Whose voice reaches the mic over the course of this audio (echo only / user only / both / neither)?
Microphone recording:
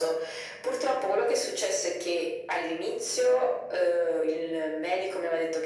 echo only